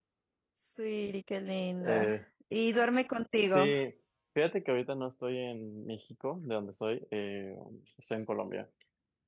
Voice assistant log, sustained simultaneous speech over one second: none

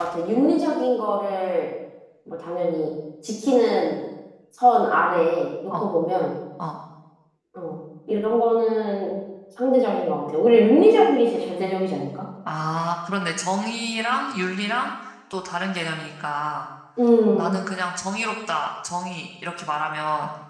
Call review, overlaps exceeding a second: none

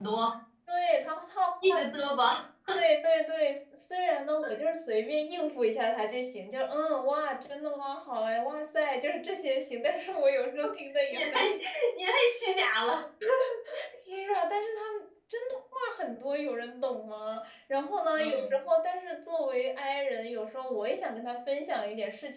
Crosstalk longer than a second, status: none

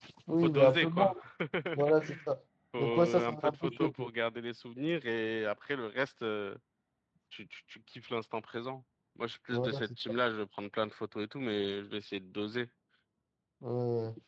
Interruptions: present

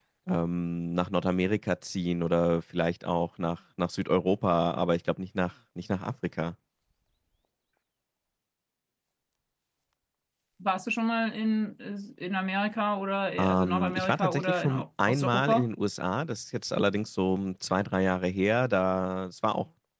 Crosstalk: present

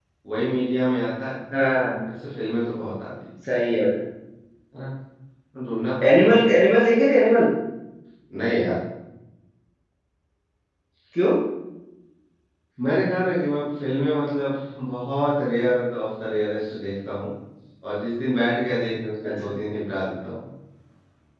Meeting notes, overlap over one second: none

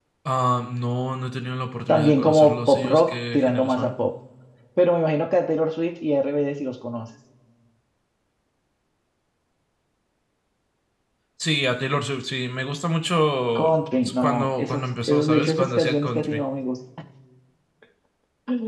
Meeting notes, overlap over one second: present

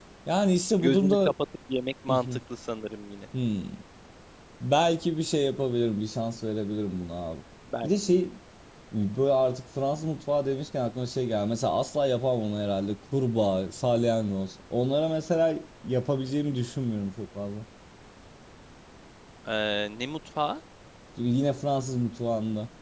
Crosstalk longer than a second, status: none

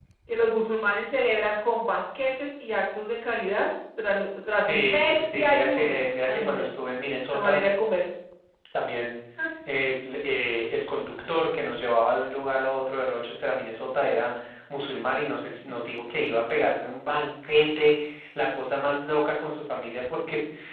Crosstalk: present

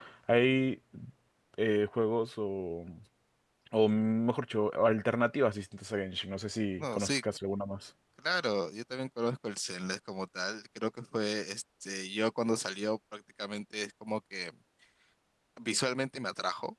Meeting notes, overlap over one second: none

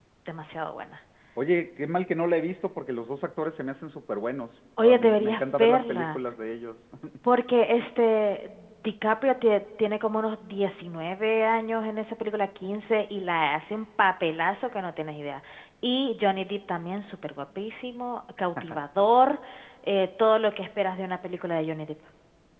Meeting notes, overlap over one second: present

